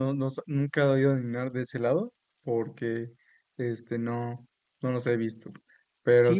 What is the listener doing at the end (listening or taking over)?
taking over